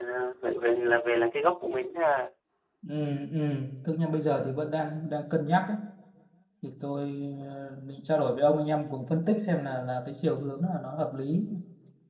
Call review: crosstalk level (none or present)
none